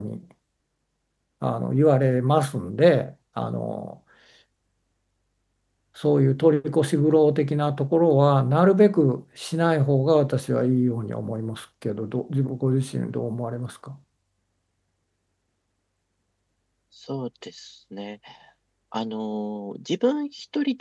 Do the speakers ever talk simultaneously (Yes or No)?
No